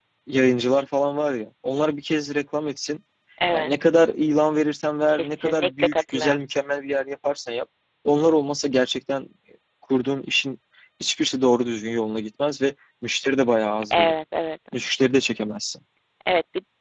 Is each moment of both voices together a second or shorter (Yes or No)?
No